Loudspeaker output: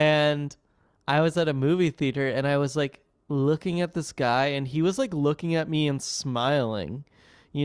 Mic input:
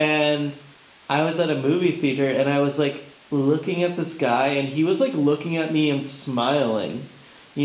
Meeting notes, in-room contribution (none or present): none